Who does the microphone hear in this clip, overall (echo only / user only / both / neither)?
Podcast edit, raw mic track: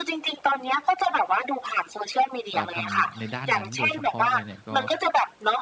both